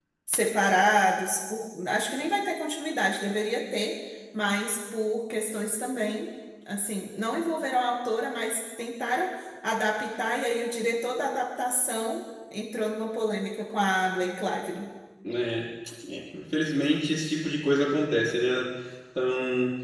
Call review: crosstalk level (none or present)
none